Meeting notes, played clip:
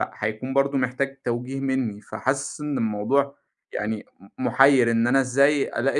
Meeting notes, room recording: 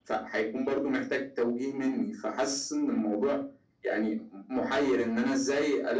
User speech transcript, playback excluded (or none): none